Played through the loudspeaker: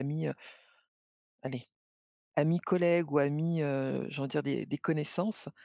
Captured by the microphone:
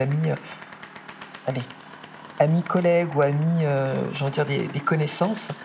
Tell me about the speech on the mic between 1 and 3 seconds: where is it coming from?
echo only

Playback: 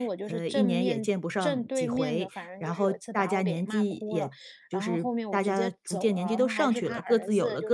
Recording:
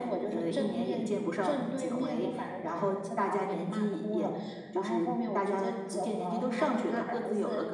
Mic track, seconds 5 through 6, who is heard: echo only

